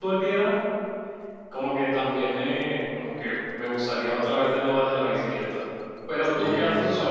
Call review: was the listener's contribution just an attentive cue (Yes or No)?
Yes